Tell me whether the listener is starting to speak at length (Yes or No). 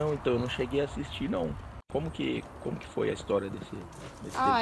Yes